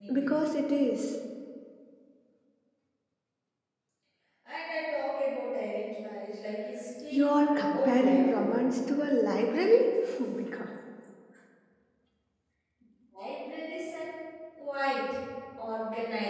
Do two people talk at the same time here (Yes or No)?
Yes